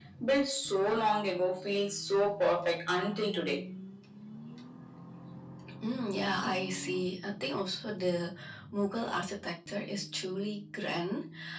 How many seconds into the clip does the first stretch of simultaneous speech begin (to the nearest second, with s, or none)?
none